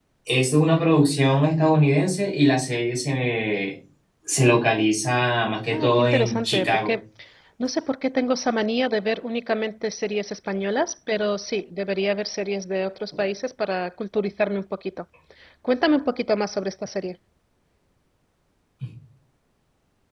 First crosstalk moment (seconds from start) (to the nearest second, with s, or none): 6 s